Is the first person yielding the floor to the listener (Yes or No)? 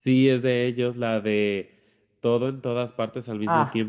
Yes